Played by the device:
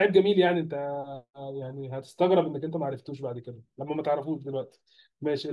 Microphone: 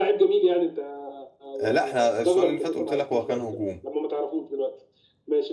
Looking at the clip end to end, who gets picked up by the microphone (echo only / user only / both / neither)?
both